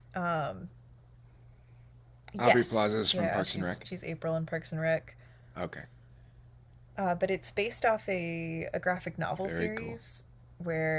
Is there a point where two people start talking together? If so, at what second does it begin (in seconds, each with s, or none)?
2.4 s